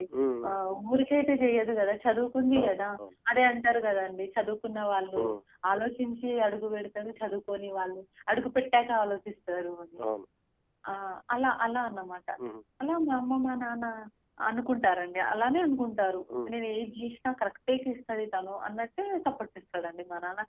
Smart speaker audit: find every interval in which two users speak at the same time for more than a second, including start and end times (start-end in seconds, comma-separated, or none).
none